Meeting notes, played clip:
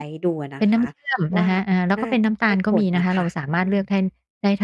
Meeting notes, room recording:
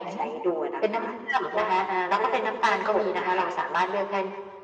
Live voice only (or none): none